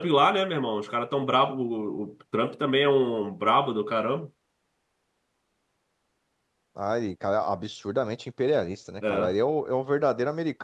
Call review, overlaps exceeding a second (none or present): none